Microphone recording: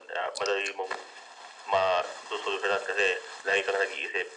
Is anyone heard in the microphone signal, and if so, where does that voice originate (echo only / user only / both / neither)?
echo only